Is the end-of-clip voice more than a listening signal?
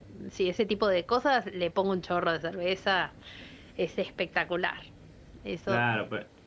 Yes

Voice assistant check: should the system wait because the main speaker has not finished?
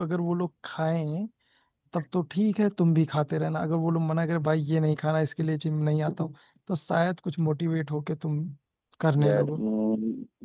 No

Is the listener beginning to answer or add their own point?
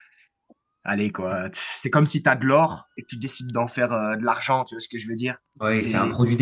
Yes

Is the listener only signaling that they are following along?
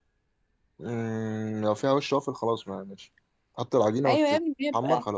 No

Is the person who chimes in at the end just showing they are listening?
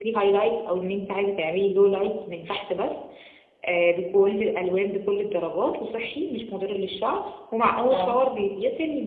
Yes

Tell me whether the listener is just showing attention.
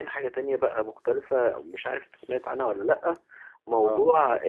Yes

